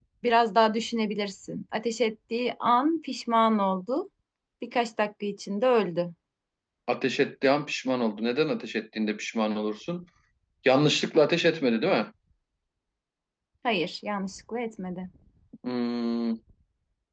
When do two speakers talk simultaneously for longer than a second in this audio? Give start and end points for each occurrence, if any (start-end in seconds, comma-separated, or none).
none